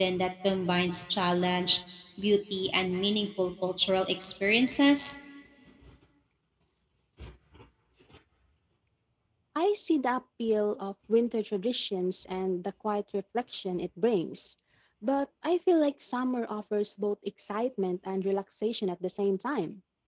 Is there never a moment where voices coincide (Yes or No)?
Yes